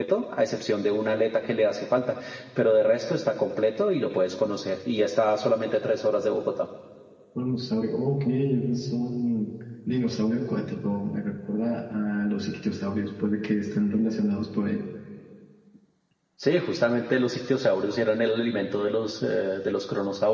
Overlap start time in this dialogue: none

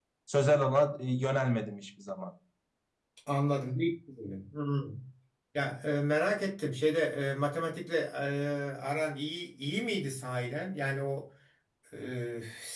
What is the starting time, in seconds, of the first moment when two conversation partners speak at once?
none

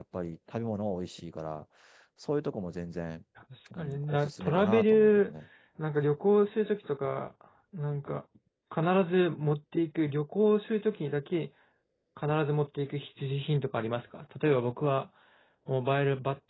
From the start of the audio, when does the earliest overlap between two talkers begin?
4 s

